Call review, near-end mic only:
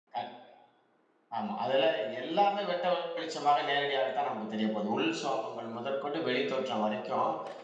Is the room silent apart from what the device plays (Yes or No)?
No